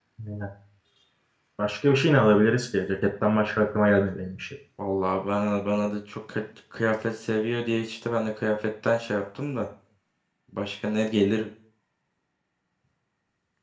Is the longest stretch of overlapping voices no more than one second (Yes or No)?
Yes